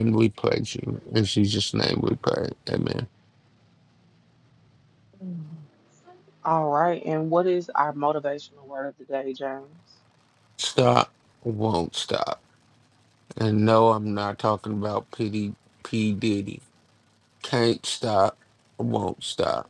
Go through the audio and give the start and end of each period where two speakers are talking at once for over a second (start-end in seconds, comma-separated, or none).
none